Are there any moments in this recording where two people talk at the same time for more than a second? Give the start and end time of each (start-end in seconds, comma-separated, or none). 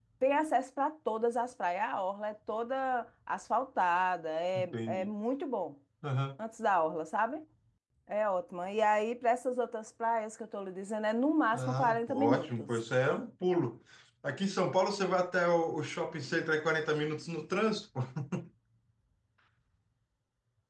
11.5-12.8